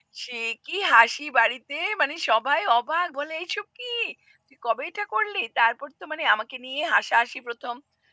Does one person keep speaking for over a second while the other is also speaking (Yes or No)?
No